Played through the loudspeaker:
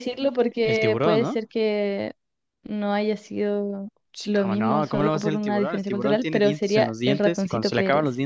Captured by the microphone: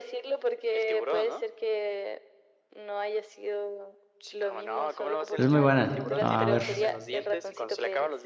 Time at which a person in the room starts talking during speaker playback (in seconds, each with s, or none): 5.4 s